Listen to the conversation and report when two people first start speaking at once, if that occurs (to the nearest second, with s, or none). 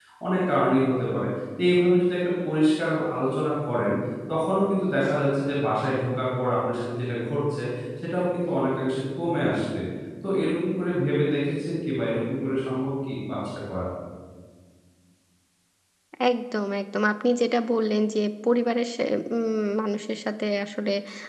none